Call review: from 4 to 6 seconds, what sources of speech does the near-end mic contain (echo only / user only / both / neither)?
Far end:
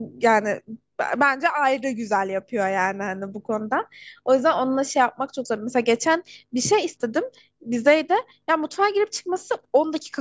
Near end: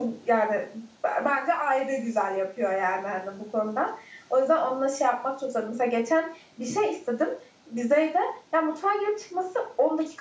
echo only